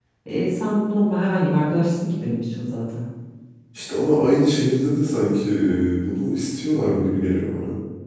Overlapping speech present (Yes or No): No